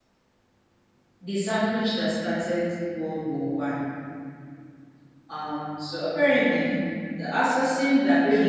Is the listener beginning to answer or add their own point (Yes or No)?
Yes